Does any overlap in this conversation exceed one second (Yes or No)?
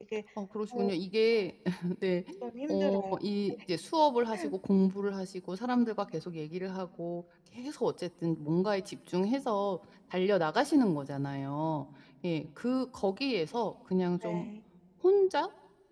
No